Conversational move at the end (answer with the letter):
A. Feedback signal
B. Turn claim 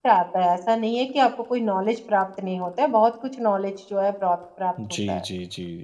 B